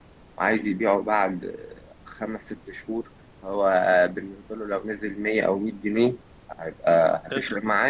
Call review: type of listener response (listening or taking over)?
listening